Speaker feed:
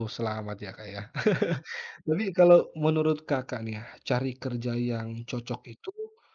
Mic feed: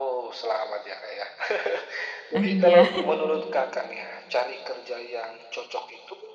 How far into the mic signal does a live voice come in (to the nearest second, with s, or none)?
2 s